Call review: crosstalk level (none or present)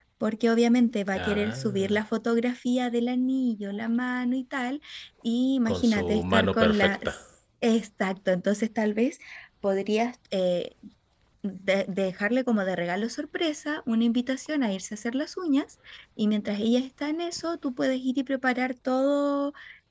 present